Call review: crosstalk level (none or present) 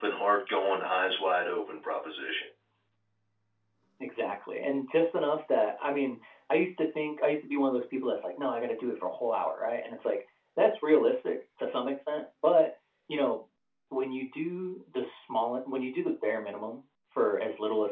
none